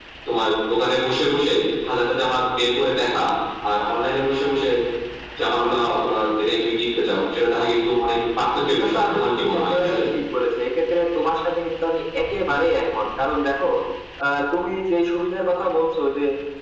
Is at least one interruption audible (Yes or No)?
Yes